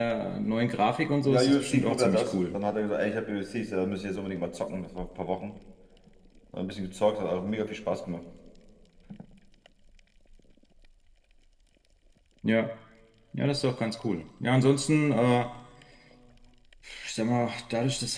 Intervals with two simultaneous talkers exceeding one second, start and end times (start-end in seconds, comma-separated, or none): 1.3-2.6